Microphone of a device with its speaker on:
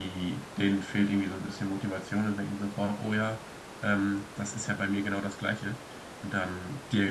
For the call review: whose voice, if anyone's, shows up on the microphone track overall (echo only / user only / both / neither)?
user only